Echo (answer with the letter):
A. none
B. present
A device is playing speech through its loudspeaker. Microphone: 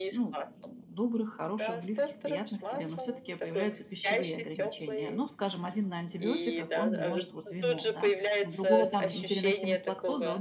B